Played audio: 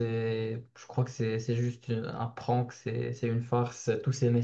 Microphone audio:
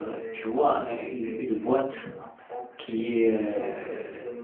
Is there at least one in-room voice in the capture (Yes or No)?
Yes